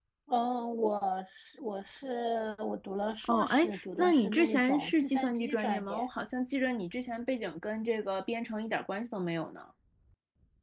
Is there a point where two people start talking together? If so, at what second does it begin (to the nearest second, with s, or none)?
3 s